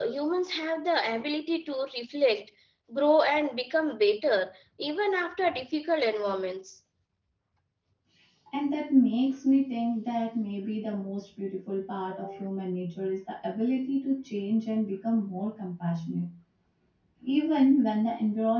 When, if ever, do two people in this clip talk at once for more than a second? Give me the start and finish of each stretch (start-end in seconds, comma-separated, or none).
none